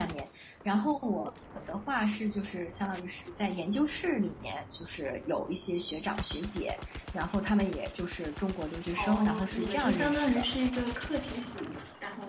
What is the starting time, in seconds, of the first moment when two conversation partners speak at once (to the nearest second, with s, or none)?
9 s